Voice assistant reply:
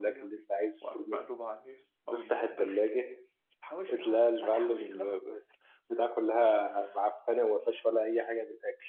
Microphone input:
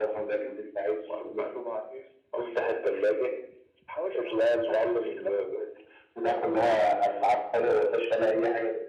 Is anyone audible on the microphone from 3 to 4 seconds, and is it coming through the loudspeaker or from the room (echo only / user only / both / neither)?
echo only